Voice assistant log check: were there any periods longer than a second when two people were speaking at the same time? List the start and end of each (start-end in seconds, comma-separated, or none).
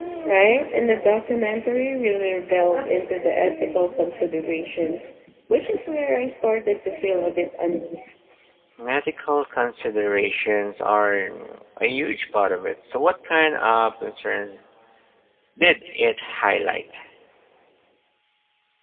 none